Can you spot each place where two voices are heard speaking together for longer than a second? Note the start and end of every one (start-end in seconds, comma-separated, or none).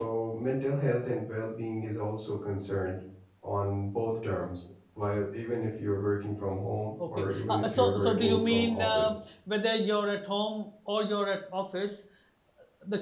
7.1-9.1